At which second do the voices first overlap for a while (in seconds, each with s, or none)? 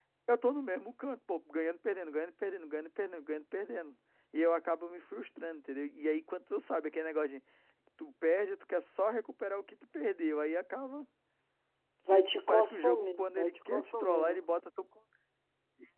12.1 s